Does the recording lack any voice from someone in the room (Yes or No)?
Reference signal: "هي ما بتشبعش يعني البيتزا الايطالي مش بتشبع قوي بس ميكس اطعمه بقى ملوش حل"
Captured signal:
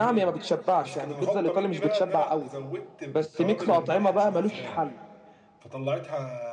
No